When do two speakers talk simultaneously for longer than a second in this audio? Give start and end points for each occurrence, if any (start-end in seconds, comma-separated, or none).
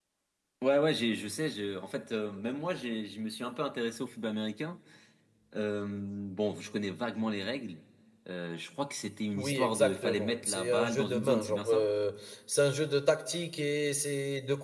9.3-11.9